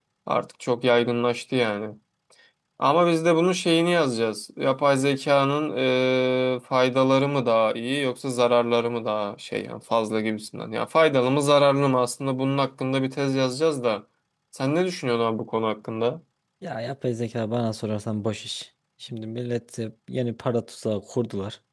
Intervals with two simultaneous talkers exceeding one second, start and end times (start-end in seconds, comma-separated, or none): none